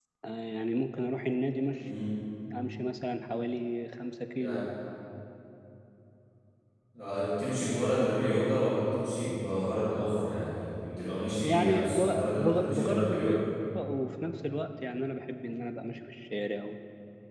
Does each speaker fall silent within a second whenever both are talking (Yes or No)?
No